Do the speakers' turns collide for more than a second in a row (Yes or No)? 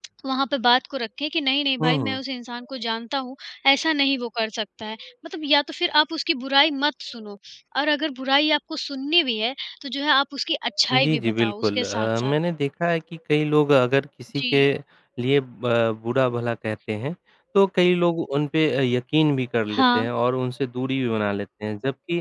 Yes